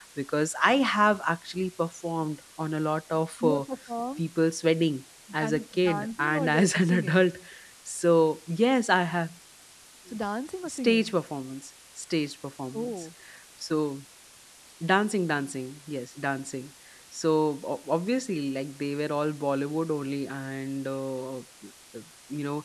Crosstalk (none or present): present